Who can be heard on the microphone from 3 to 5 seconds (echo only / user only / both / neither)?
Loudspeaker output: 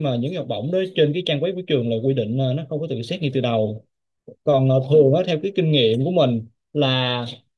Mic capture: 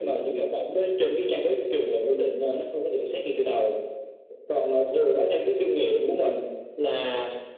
echo only